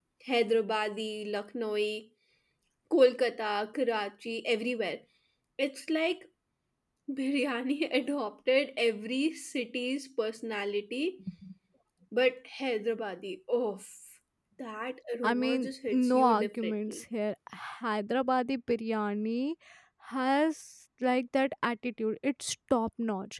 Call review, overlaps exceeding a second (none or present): present